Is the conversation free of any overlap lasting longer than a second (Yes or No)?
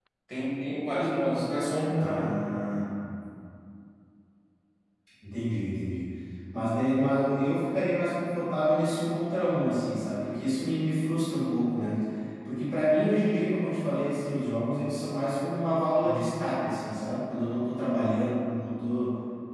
Yes